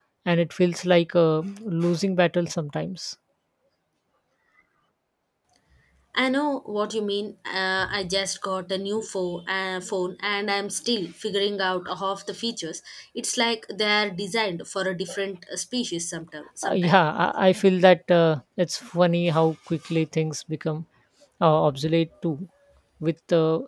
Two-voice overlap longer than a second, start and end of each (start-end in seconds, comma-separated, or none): none